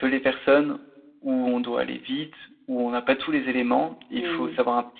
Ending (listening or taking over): listening